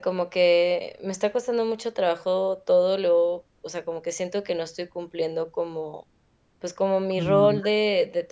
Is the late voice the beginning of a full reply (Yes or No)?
No